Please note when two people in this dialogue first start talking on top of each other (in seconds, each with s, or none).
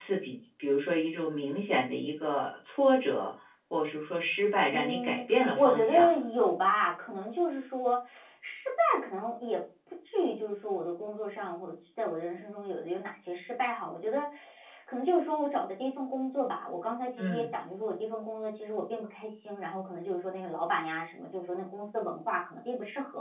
4.7 s